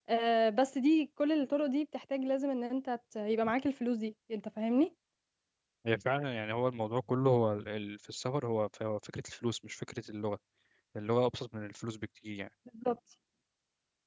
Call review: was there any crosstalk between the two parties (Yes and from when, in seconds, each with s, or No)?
No